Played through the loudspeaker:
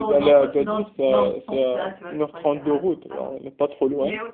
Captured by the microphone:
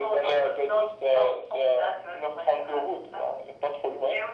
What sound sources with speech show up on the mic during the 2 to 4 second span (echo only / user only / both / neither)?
echo only